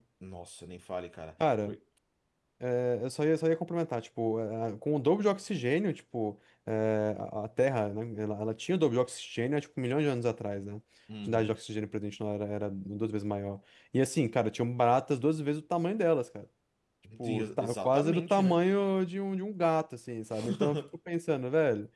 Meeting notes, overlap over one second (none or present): present